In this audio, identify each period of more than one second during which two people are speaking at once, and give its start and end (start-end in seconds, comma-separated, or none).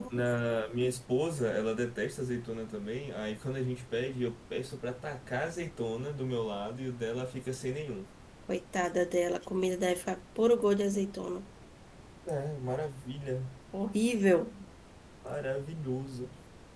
none